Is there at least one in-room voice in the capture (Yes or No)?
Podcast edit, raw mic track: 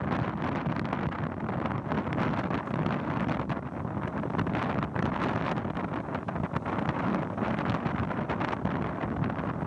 No